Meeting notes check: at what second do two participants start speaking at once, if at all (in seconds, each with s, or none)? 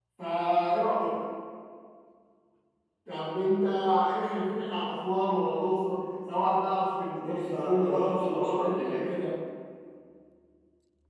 7.2 s